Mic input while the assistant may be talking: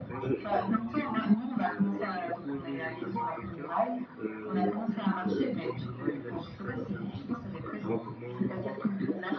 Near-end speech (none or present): none